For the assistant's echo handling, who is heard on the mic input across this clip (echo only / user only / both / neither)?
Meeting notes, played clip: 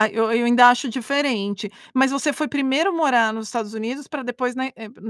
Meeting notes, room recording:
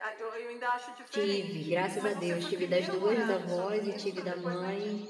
both